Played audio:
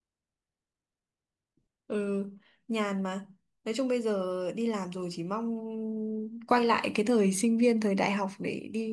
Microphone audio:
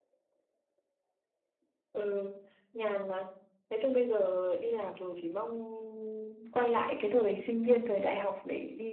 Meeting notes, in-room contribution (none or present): none